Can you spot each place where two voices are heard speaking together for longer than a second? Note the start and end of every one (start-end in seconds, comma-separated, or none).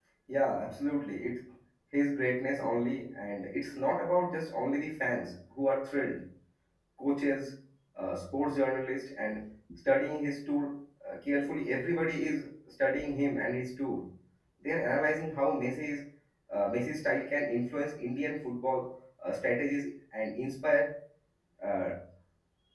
none